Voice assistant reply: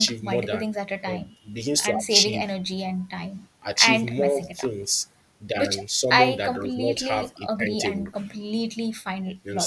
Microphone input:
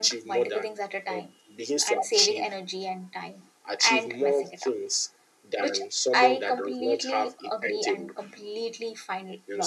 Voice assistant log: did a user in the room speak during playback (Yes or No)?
No